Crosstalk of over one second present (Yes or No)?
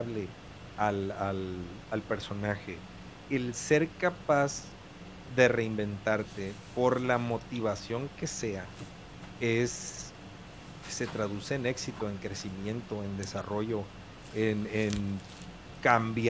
No